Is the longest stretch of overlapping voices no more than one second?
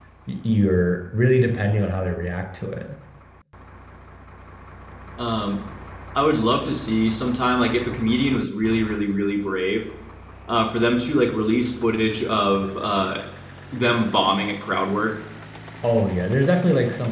Yes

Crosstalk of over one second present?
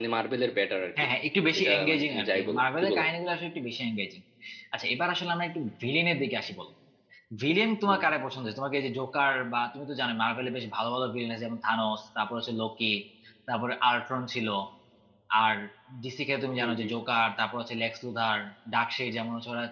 Yes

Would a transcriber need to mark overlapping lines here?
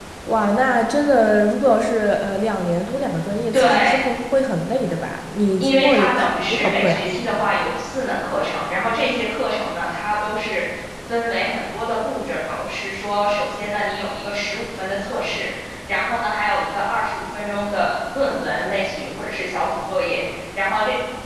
Yes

